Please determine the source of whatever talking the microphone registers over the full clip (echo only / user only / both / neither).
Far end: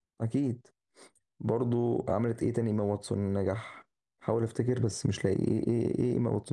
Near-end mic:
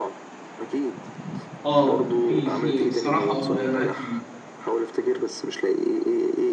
both